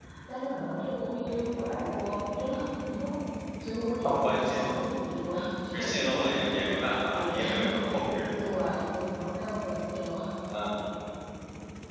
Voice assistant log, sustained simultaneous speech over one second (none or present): present